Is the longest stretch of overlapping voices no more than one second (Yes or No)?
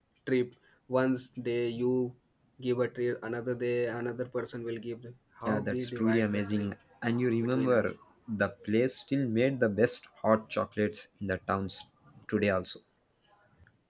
No